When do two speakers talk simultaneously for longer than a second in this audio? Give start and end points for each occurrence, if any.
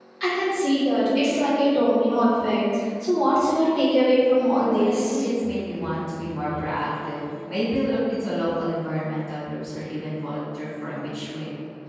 none

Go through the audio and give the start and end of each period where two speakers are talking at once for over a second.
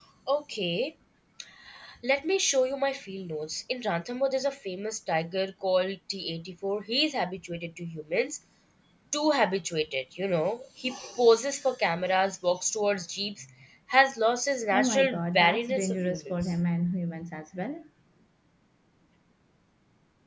14.7-16.6

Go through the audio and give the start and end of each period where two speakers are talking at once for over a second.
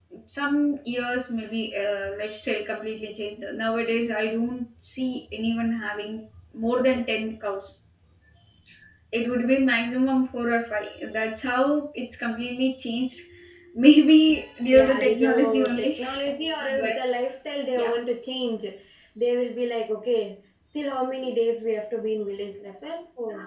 14.7-15.9

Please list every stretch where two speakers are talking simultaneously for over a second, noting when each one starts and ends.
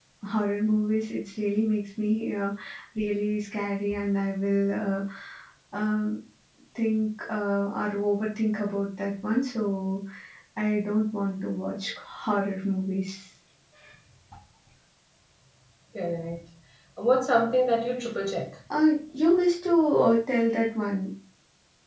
none

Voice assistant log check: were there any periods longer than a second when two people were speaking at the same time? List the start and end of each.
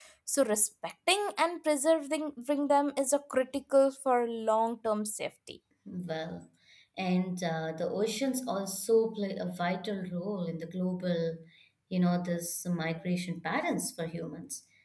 none

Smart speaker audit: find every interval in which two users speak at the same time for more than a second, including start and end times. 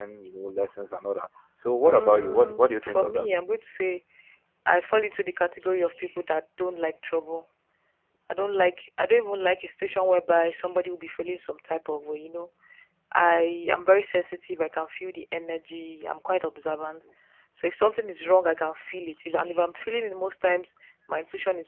1.8-3.3

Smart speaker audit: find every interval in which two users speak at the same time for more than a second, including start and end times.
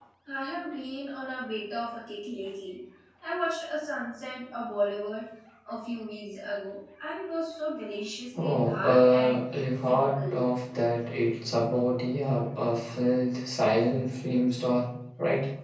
8.3-10.4

